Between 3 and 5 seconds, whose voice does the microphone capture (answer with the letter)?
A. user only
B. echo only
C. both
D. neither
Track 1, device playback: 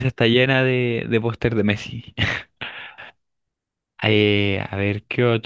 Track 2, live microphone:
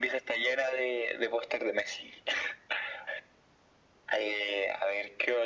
B